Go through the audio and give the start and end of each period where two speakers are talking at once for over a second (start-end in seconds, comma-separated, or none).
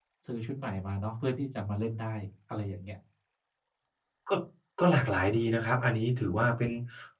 none